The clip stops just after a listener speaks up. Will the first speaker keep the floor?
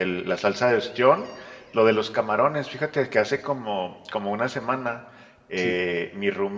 Yes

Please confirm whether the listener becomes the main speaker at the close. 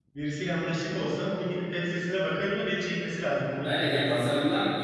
Yes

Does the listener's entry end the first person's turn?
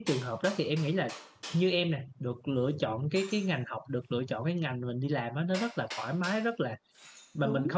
No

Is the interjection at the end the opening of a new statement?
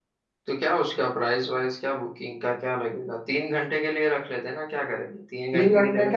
Yes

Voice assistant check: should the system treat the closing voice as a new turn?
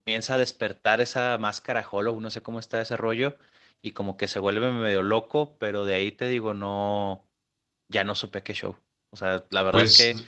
No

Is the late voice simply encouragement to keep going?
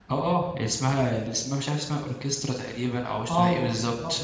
No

